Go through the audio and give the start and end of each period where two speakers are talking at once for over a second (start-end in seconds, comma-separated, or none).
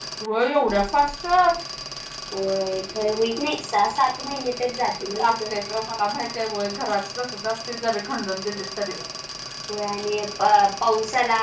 none